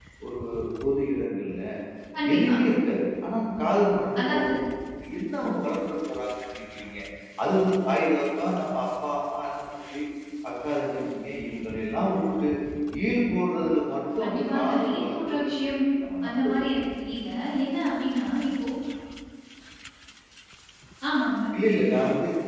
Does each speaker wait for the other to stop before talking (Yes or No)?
No